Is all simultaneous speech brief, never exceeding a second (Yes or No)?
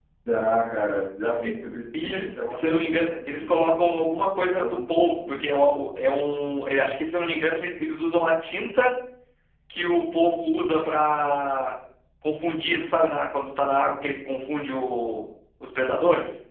No